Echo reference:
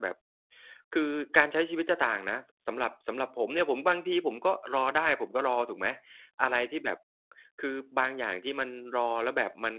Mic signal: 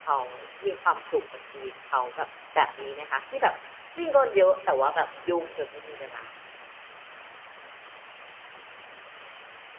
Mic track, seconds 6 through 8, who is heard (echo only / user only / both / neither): user only